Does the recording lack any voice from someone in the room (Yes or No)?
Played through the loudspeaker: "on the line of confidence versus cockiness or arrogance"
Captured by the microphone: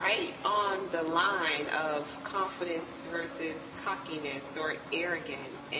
Yes